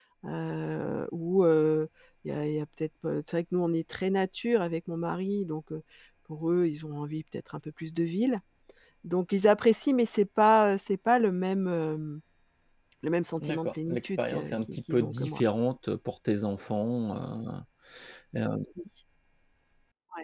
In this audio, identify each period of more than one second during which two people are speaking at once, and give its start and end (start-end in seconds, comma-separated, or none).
13.4-15.4